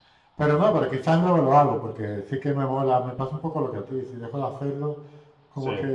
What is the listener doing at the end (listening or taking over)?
listening